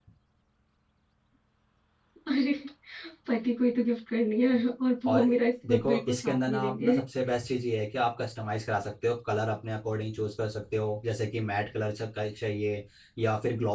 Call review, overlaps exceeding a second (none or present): present